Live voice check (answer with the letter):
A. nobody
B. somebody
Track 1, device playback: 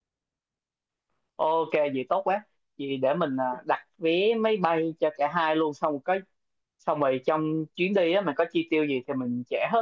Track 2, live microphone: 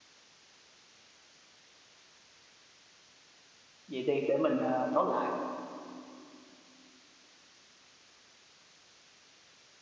B